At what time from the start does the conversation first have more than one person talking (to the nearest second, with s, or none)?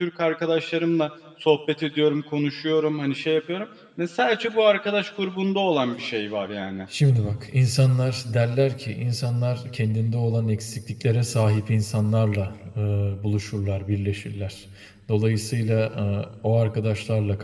none